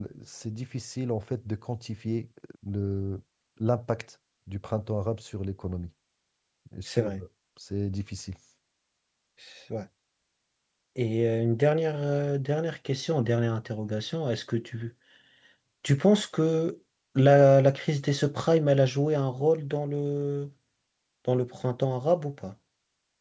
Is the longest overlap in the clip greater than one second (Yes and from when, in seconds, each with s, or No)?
No